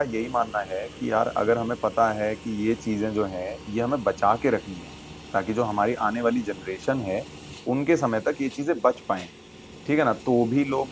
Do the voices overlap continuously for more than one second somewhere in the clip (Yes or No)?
No